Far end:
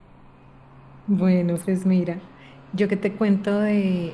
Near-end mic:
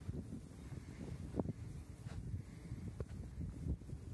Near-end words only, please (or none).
none